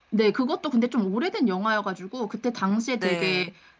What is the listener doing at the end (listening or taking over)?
listening